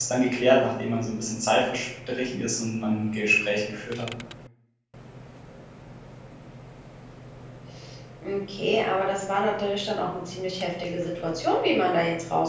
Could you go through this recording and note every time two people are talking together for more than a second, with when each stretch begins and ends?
none

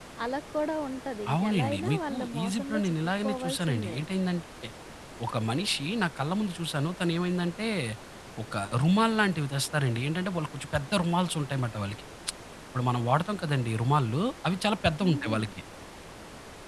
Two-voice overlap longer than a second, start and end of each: 1.3-4.0

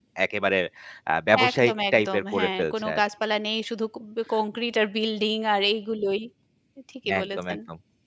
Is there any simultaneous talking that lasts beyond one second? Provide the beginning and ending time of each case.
1.5-3.0

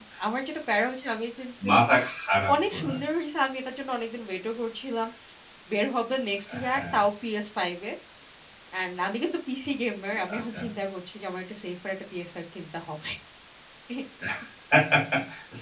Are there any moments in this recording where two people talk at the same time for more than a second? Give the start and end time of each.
none

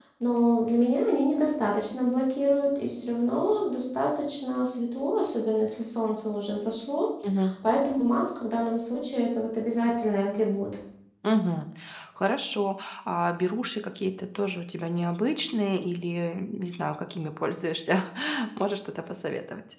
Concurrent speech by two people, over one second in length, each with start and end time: none

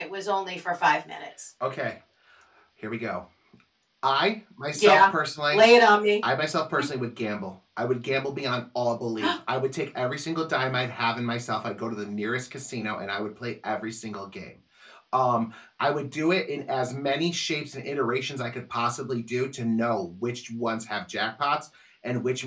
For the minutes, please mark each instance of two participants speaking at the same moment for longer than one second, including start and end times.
none

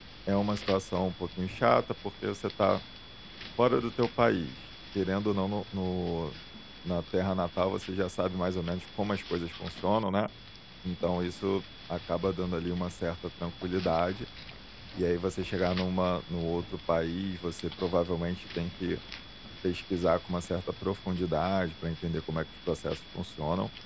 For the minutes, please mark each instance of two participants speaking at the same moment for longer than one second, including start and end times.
none

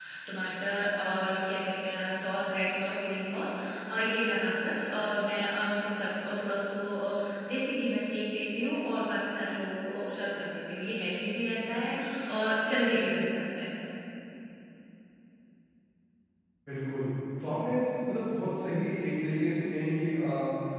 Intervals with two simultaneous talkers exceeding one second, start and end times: none

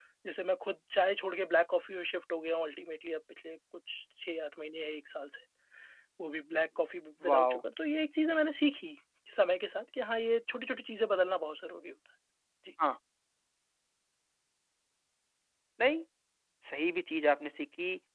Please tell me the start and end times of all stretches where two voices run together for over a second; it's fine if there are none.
none

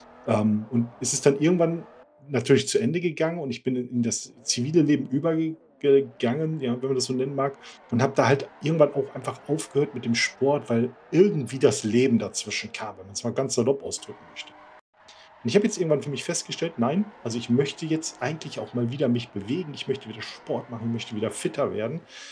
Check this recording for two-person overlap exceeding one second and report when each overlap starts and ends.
none

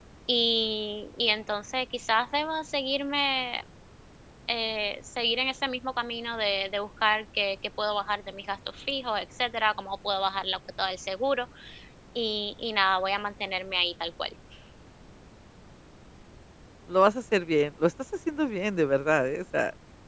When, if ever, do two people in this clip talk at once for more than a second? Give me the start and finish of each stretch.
none

